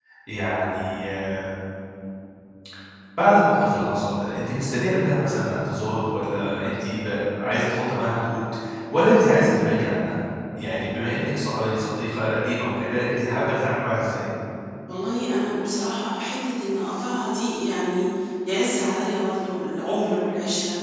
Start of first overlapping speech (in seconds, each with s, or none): none